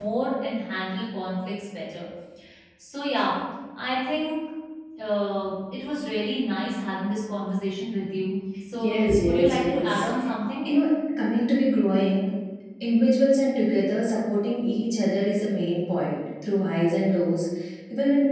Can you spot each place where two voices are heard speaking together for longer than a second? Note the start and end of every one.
8.7-10.1

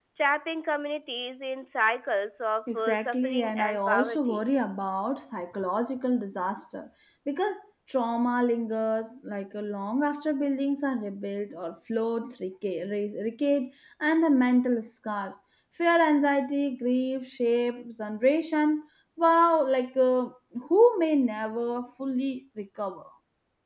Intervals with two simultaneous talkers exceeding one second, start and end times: 2.7-4.4

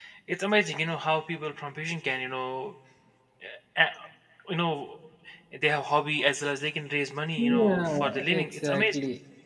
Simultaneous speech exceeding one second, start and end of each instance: 7.4-8.9

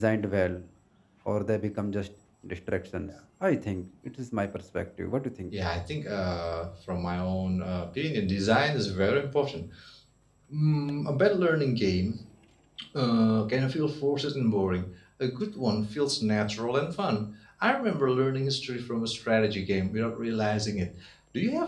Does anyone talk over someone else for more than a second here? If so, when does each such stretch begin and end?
none

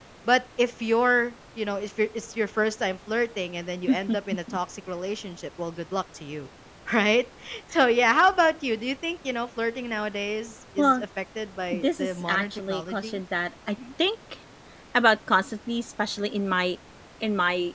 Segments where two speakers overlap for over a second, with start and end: 11.7-13.2

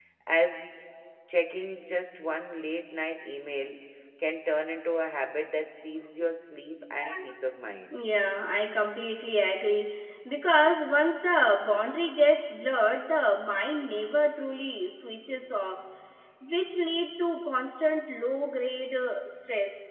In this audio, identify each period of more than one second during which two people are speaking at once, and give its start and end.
none

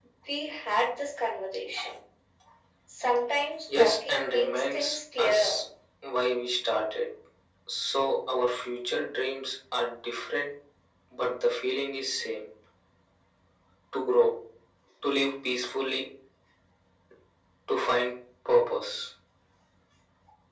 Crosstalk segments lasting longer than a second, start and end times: 3.7-5.6

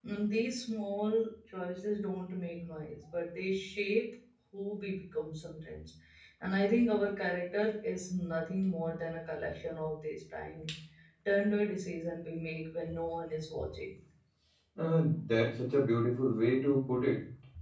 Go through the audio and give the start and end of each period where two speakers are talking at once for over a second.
none

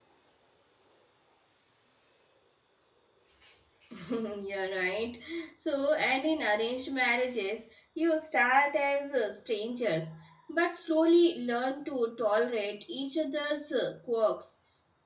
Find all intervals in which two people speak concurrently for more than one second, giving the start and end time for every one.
none

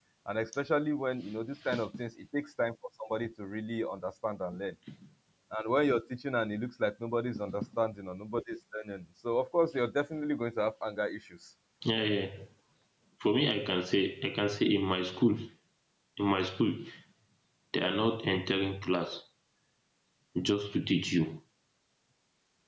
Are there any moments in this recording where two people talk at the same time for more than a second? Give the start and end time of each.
none

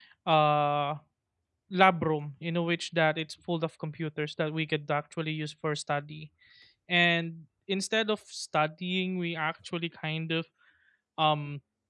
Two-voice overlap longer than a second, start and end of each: none

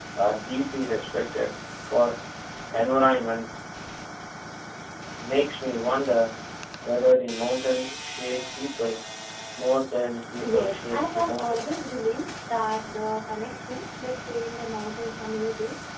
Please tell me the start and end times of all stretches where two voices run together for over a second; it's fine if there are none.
10.4-11.7

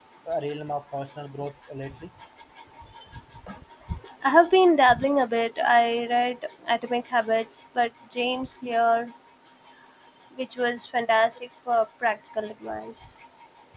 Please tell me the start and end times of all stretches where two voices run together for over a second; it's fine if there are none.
none

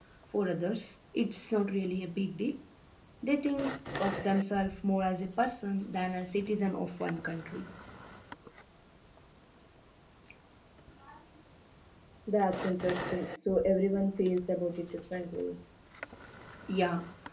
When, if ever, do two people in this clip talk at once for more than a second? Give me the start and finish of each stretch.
none

